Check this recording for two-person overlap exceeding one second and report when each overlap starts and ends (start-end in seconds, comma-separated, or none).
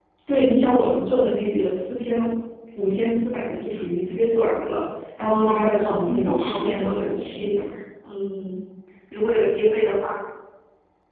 5.2-7.5